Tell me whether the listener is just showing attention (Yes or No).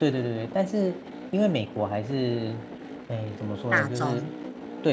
Yes